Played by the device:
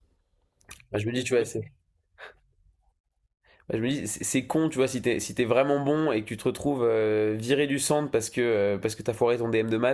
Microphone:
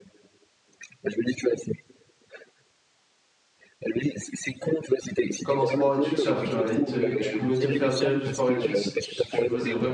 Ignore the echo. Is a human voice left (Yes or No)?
Yes